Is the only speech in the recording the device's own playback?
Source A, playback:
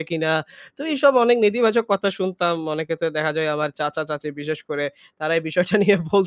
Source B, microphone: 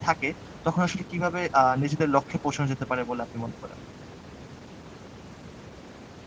No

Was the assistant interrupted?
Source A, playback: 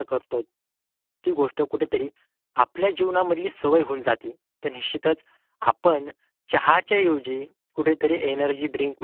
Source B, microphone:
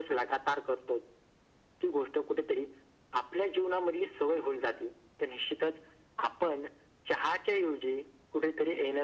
No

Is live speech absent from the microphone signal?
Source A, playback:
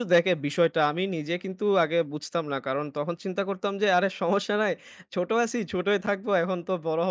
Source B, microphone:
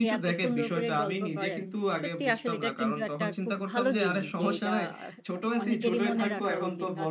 No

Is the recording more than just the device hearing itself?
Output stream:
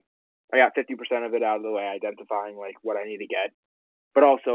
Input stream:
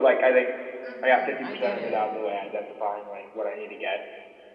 Yes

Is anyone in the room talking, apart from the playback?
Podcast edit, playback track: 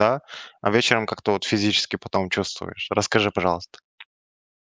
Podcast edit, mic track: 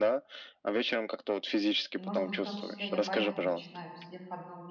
Yes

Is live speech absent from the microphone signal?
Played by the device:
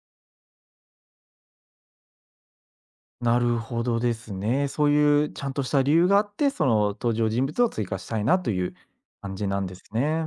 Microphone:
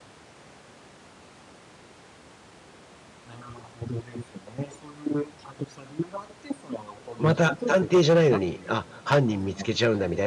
No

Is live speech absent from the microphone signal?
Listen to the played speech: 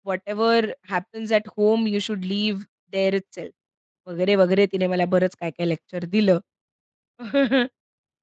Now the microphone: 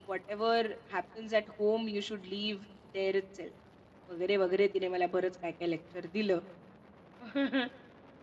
Yes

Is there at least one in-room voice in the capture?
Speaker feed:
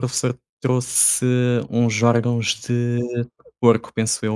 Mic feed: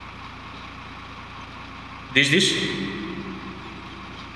Yes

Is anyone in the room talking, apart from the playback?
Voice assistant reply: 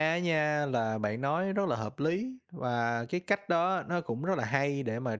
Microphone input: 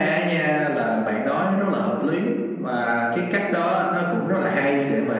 No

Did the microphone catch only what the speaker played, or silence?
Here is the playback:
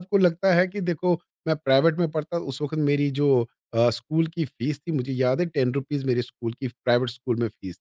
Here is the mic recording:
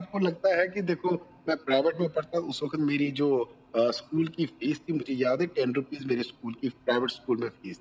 Yes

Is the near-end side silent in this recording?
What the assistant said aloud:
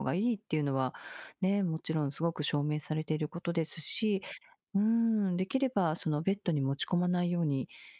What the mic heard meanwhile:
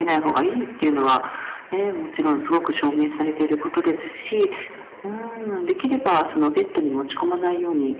Yes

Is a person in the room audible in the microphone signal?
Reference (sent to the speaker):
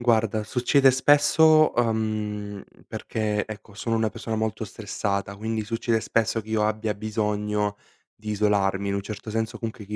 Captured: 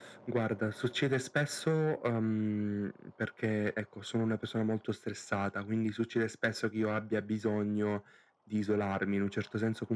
No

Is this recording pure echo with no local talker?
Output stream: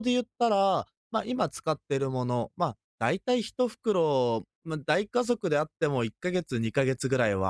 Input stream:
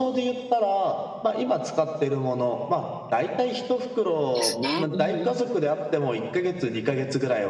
No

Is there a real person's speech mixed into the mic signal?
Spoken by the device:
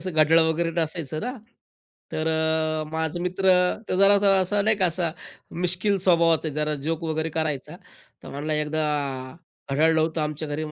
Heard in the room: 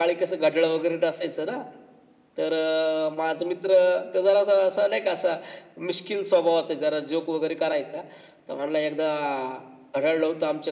No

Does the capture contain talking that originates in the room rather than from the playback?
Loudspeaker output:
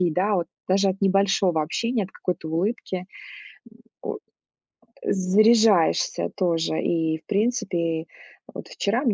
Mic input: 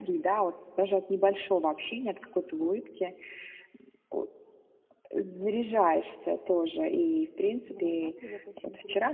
Yes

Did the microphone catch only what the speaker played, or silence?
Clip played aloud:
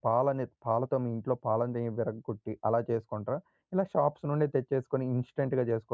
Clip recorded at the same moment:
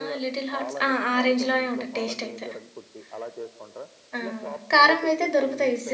No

